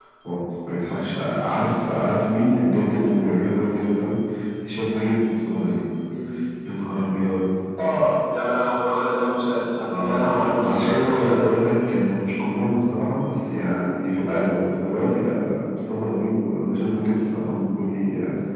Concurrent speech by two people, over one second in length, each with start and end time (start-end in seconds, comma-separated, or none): 9.9-11.6